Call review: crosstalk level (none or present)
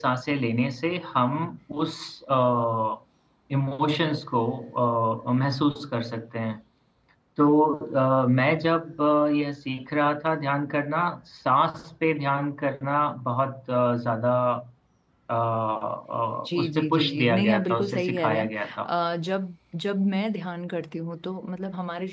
present